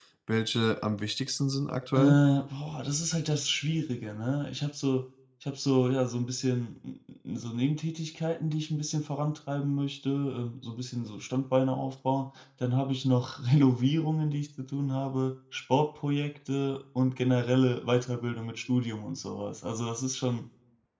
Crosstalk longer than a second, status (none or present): none